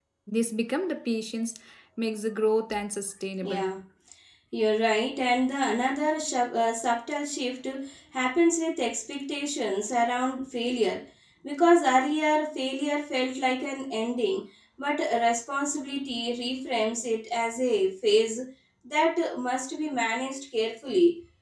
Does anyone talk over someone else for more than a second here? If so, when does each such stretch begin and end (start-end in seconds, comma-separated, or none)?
none